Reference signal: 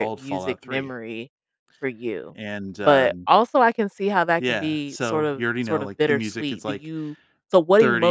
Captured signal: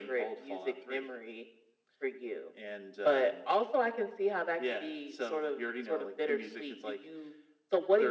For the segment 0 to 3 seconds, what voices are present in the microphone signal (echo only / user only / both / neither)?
echo only